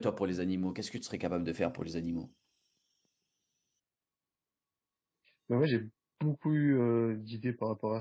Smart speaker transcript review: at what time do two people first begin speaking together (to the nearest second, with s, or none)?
none